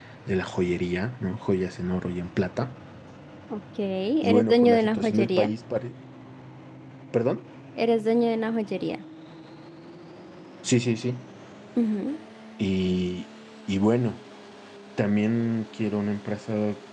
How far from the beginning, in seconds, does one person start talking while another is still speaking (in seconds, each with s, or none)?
4.2 s